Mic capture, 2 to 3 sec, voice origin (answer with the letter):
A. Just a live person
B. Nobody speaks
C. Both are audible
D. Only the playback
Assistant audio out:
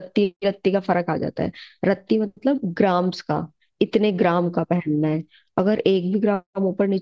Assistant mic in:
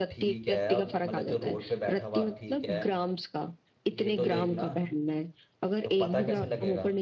C